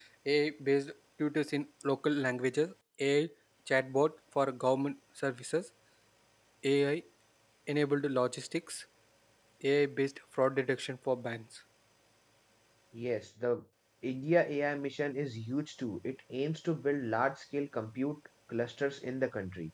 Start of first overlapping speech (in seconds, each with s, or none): none